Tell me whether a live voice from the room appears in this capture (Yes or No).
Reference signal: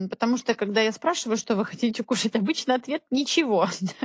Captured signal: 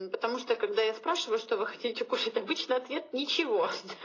No